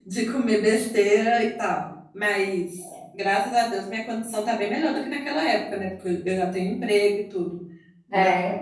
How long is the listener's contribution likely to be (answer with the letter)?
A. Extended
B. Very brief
B